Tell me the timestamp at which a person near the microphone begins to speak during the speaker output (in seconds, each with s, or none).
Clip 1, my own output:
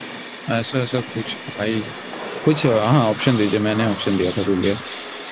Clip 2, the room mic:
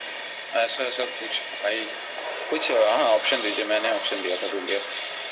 none